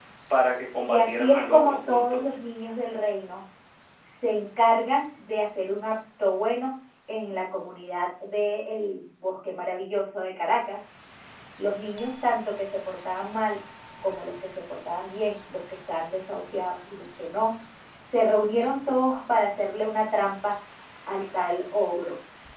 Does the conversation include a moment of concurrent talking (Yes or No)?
Yes